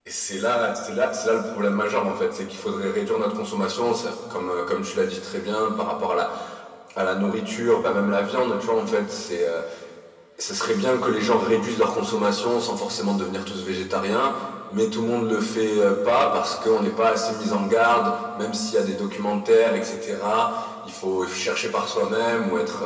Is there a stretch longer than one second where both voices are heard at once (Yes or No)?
No